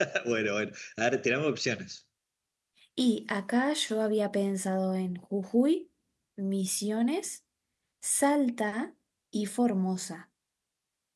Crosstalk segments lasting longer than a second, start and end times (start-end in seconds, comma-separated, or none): none